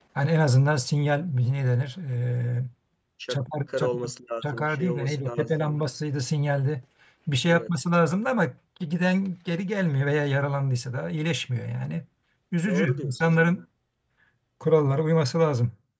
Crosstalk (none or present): present